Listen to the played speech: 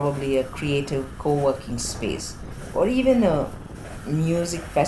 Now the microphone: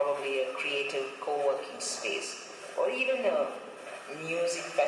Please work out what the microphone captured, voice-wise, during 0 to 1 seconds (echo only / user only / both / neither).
echo only